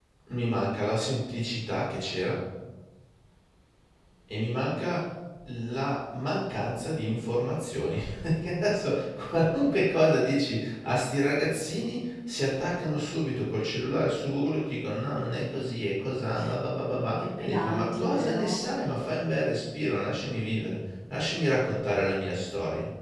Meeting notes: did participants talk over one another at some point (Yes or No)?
Yes